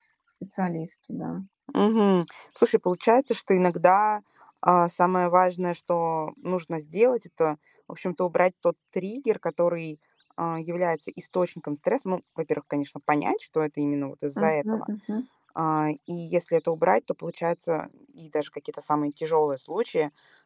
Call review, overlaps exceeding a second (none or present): none